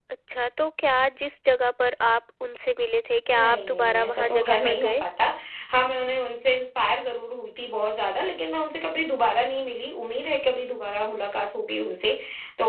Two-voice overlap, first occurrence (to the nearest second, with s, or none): 3 s